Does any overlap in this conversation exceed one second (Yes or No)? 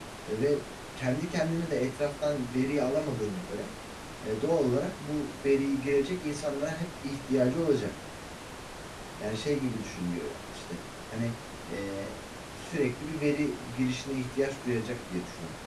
No